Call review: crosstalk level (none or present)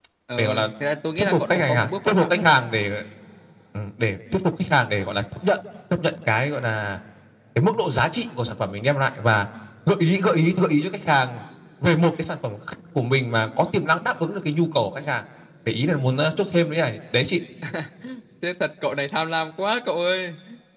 present